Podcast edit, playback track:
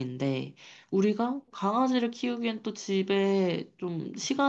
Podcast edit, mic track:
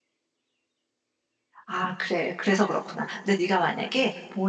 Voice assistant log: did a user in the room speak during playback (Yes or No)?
Yes